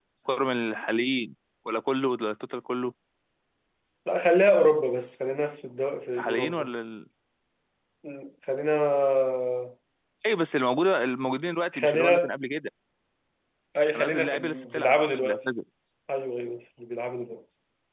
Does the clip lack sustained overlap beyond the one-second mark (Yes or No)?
No